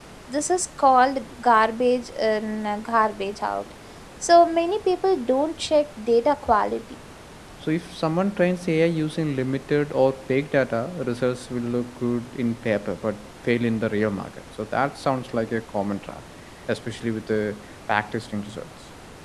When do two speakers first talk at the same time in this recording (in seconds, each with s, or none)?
none